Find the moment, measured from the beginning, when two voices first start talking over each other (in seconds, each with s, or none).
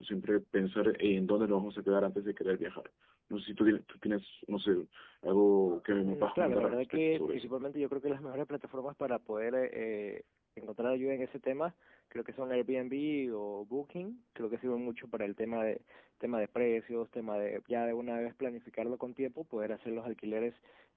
6.0 s